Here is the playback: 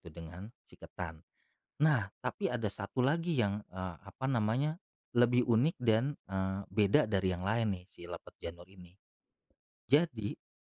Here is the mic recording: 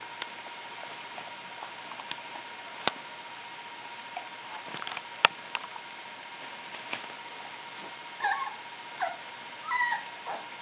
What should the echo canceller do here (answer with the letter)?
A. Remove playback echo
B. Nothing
B